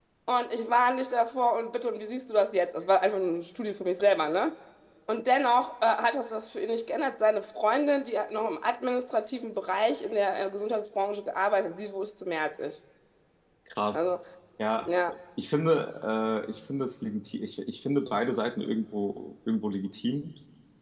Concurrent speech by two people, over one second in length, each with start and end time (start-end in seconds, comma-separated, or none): none